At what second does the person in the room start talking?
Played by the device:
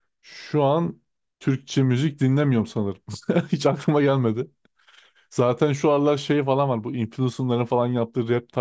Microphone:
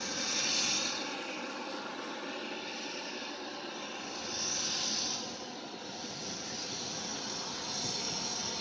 none

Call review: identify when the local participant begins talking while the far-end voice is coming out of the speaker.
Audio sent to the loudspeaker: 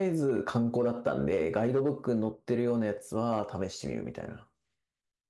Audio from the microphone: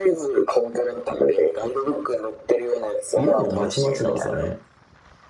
3.1 s

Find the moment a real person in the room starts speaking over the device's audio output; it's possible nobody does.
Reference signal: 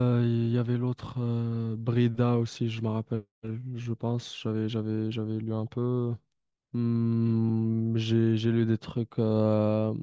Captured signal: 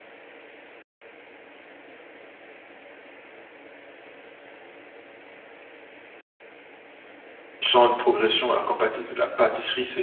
7.6 s

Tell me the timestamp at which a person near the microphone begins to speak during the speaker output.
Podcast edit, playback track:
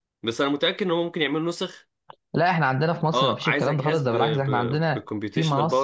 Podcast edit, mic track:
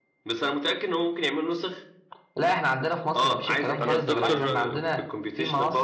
3.8 s

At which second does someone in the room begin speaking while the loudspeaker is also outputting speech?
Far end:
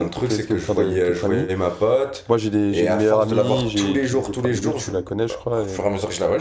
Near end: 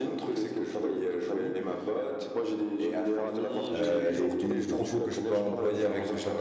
3.7 s

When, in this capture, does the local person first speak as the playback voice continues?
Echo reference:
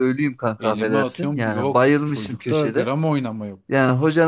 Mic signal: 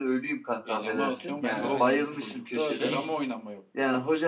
0.8 s

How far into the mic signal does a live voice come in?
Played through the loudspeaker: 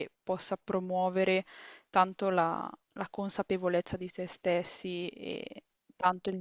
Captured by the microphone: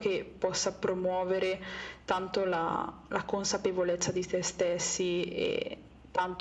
none

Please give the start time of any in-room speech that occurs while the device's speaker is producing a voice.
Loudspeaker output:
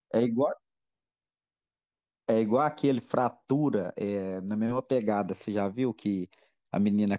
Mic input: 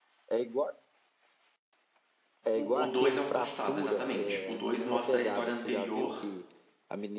2.5 s

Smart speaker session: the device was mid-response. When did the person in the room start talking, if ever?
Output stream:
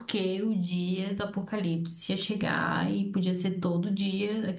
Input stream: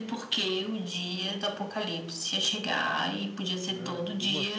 3.7 s

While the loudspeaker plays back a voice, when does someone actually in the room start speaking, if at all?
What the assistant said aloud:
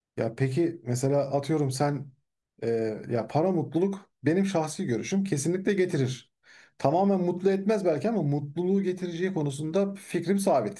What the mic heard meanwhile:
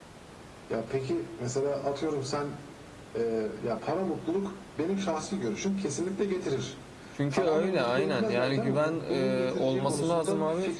7.1 s

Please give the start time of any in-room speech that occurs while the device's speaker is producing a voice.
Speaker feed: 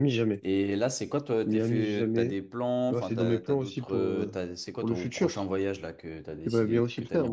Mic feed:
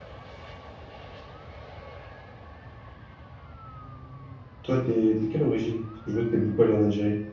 4.6 s

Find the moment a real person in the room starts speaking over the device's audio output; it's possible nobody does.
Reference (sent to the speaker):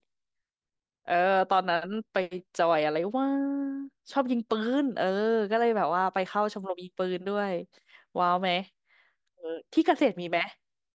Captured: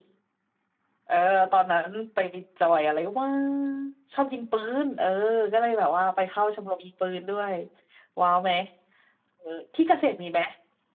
none

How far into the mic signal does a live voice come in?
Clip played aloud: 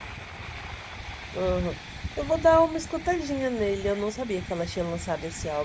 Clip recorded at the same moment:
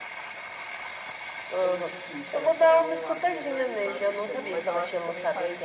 1.6 s

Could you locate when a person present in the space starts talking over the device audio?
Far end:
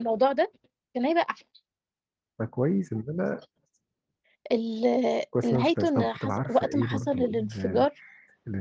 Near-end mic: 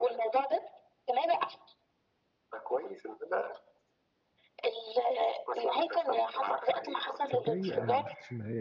7.2 s

